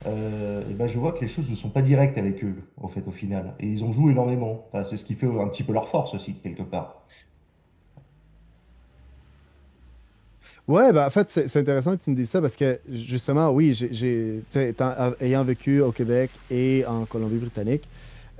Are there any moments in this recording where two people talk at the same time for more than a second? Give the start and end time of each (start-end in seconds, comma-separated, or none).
none